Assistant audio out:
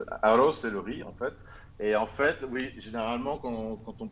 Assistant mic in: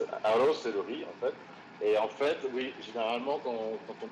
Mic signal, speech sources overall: echo only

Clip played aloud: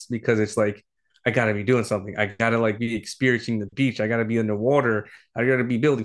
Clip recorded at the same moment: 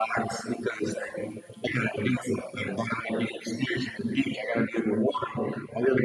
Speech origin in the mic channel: echo only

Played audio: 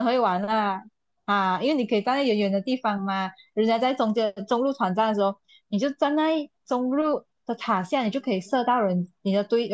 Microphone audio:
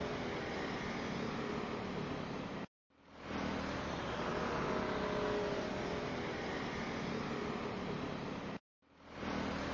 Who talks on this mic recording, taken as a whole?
neither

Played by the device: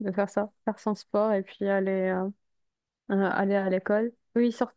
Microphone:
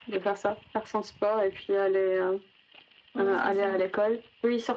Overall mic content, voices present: both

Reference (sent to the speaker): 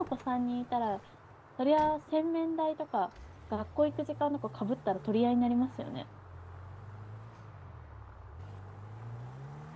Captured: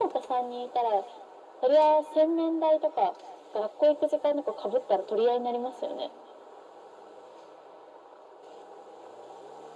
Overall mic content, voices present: echo only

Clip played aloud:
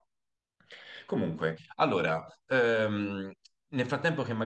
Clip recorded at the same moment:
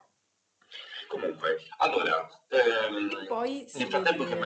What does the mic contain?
both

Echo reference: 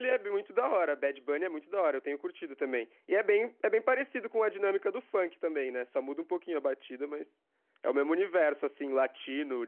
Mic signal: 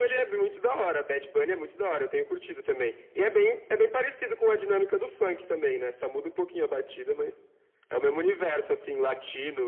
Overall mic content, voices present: echo only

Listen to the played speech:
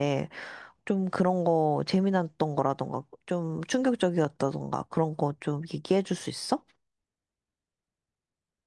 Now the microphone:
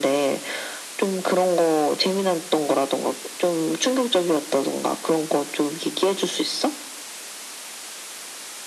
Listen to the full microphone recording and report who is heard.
echo only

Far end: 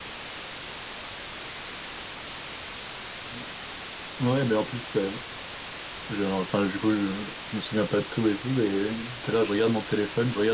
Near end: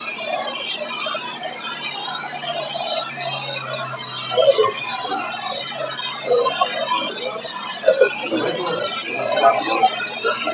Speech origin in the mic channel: both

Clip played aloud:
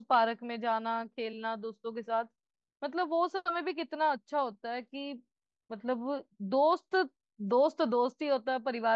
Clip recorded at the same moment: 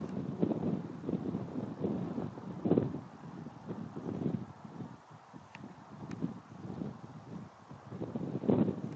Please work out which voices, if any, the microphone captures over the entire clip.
neither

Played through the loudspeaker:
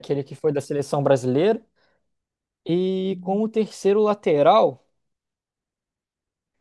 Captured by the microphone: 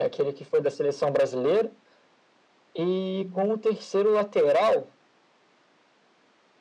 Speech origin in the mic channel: echo only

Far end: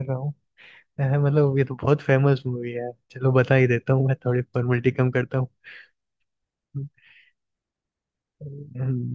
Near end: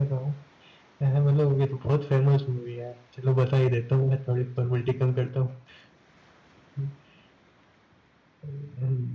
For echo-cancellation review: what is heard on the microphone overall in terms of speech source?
echo only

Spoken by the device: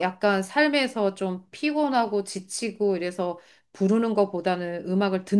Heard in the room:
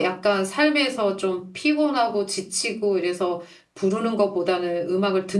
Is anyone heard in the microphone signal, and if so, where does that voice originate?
echo only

